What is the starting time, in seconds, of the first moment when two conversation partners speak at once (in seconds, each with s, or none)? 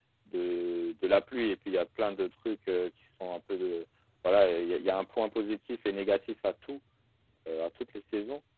none